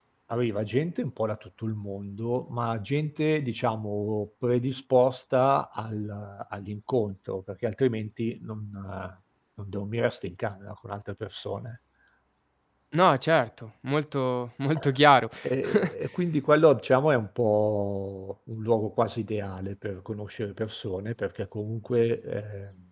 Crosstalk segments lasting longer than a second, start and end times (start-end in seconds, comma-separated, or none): none